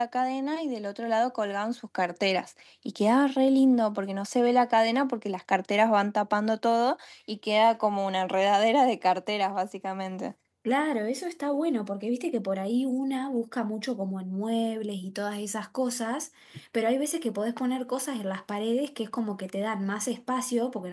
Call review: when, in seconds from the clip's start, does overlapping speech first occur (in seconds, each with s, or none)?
none